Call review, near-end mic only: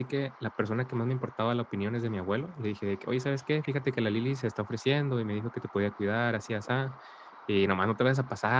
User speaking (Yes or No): Yes